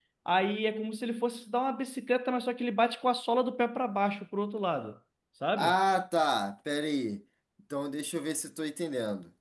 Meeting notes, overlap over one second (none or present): none